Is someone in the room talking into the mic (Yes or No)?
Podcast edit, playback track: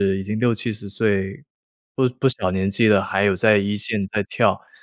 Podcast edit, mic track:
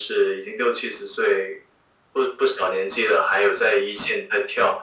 No